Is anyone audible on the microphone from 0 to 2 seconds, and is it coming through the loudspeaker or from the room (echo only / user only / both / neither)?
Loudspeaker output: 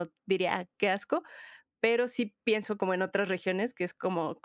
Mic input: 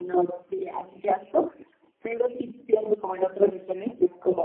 echo only